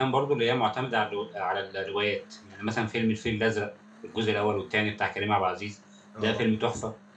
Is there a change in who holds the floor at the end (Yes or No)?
No